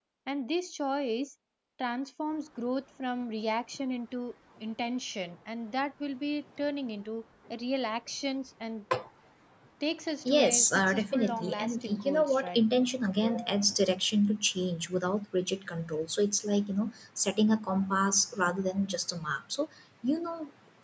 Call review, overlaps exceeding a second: present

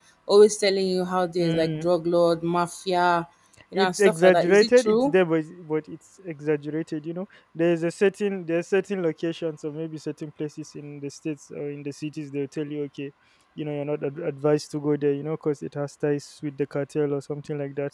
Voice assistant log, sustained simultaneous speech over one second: present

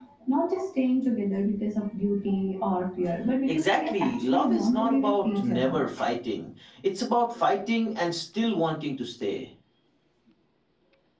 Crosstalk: present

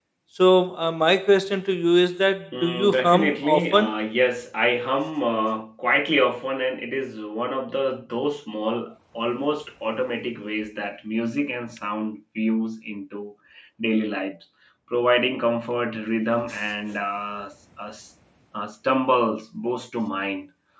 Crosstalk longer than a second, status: present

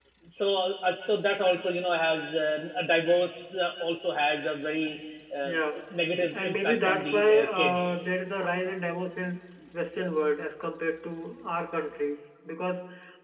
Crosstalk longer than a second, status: present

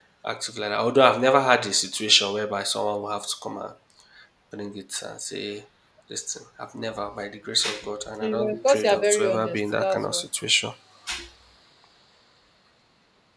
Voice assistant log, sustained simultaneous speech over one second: present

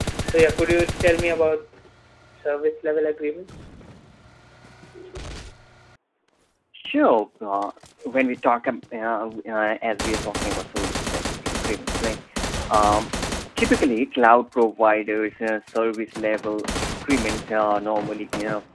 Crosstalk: none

